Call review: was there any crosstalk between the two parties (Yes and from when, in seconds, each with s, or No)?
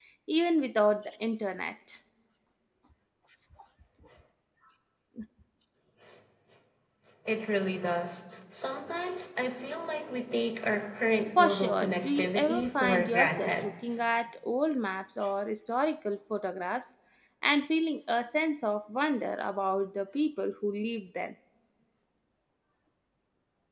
Yes, from 11.4 s